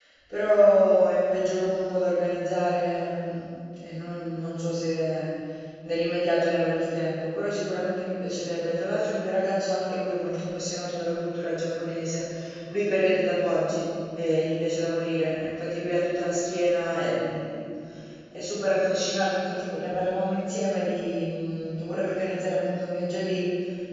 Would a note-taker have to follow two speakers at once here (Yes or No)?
No